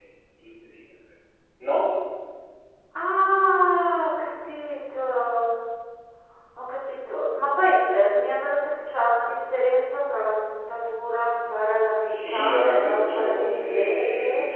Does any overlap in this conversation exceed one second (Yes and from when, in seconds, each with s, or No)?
Yes, from 12.0 s